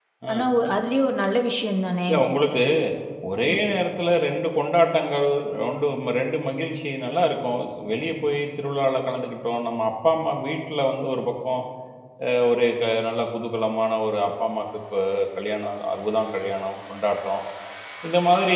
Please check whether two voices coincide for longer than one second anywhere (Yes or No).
No